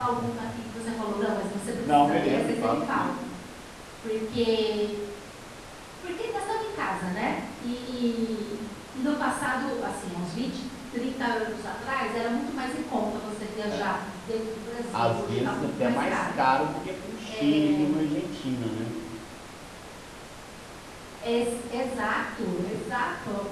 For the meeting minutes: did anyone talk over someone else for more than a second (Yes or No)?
Yes